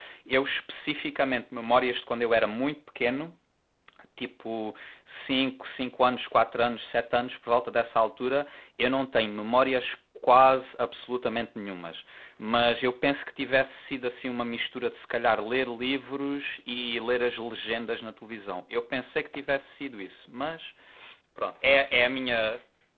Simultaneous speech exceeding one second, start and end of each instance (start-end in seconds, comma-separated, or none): none